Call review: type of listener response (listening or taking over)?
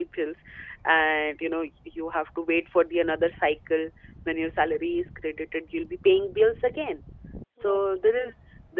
listening